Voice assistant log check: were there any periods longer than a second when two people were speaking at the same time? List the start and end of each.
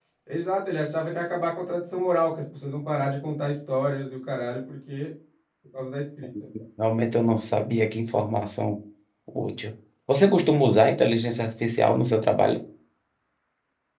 none

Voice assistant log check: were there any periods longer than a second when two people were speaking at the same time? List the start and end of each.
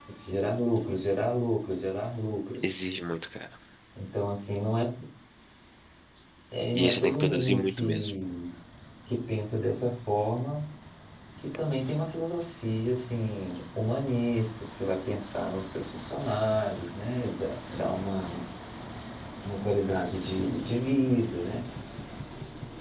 6.7-8.1

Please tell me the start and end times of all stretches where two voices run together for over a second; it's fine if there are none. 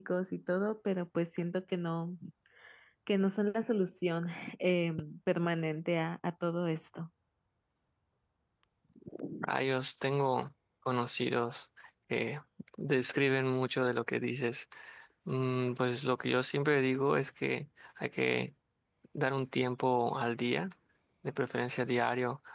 none

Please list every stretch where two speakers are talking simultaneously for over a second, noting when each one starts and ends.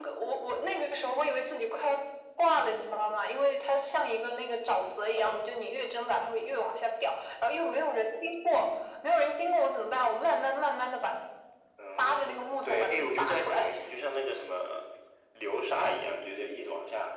12.0-13.7

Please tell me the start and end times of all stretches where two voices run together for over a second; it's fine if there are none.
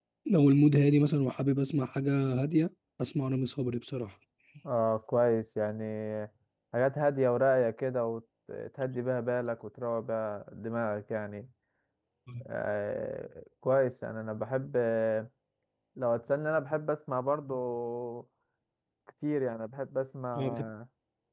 none

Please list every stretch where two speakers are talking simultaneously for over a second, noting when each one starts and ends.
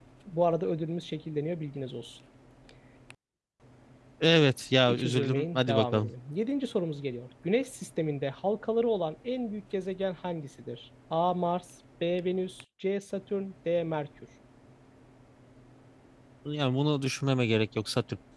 4.9-6.1

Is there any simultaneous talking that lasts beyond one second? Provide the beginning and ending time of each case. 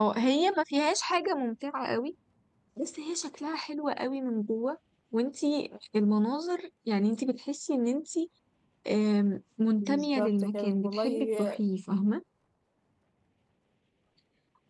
9.8-11.6

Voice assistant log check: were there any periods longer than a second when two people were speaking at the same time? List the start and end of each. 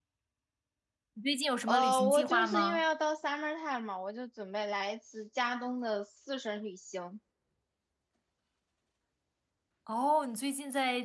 1.6-2.8

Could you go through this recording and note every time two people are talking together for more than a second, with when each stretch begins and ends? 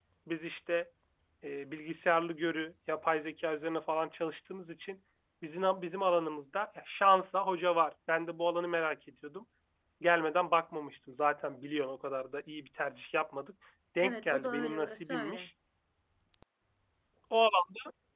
14.0-15.5

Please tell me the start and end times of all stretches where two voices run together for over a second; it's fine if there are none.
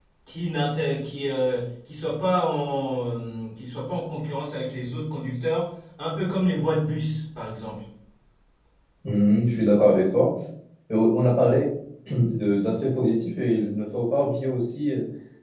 none

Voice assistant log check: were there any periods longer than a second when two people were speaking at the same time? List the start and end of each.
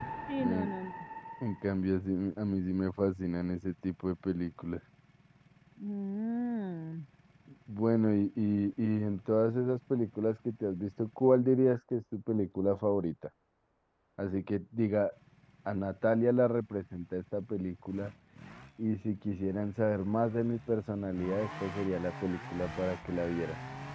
none

